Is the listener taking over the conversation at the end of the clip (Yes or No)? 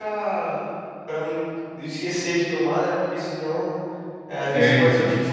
No